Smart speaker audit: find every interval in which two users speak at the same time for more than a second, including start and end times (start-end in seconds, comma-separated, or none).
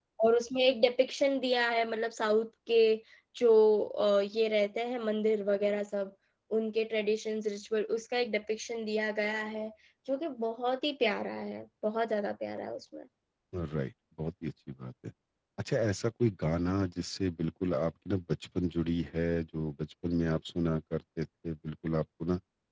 none